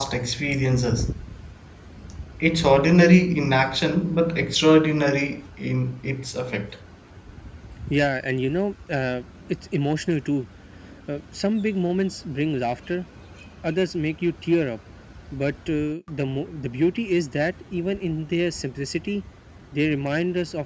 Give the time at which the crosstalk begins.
none

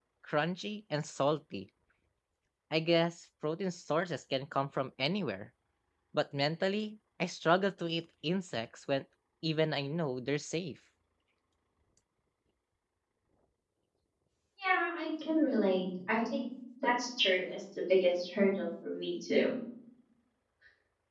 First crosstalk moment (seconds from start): none

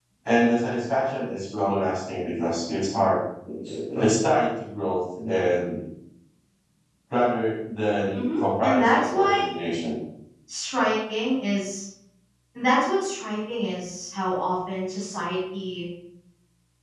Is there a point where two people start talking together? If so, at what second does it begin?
8.1 s

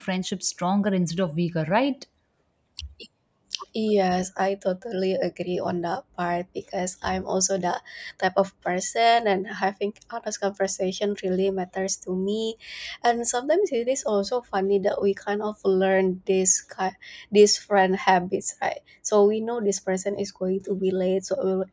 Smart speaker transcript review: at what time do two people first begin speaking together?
none

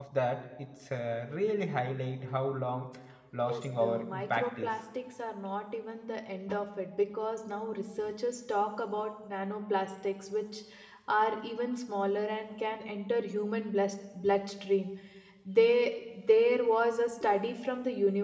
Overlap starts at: 3.4 s

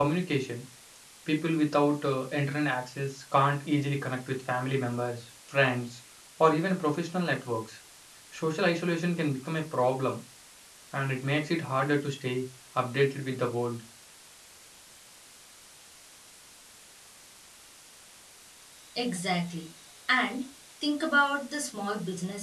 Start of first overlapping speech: none

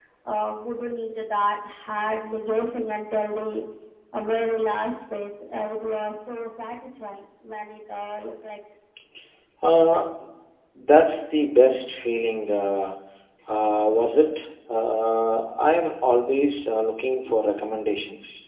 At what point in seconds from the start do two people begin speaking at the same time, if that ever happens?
none

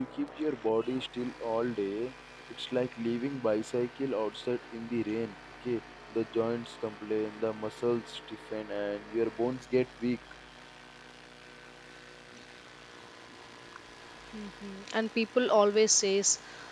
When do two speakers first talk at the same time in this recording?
none

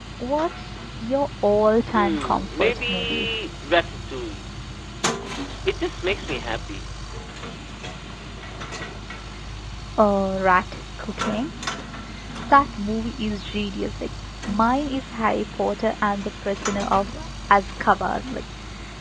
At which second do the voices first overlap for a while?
1.9 s

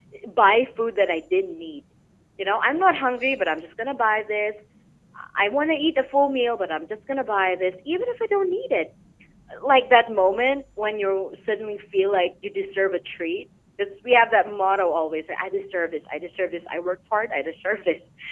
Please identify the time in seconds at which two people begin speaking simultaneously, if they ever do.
none

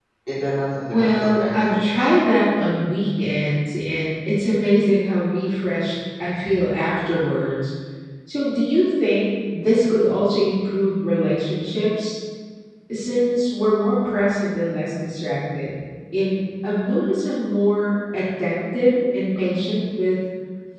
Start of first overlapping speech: 0.9 s

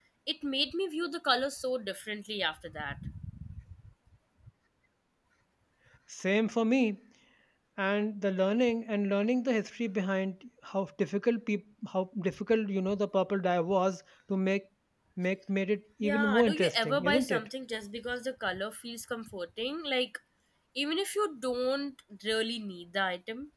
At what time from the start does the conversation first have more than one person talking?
16.0 s

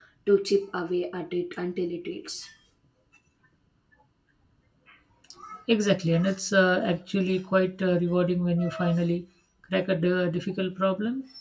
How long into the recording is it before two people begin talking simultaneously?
none

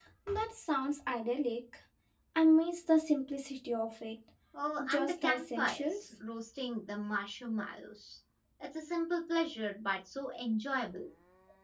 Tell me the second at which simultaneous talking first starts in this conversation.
4.8 s

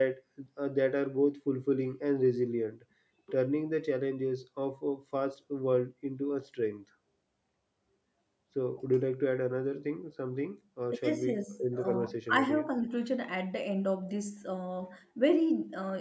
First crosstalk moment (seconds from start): 11.0 s

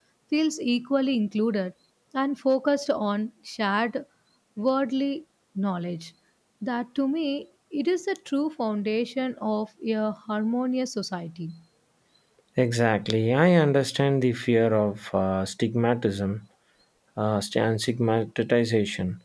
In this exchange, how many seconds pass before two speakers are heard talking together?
none

